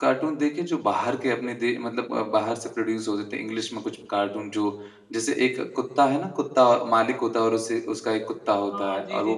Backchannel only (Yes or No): No